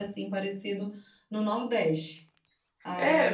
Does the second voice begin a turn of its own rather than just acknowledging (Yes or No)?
Yes